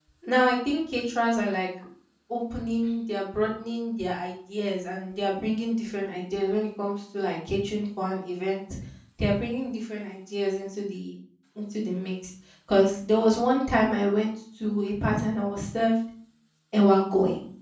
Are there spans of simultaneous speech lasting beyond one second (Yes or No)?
No